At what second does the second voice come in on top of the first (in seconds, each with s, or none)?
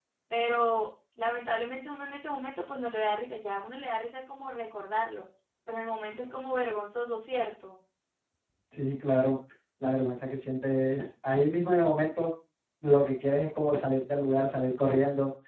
none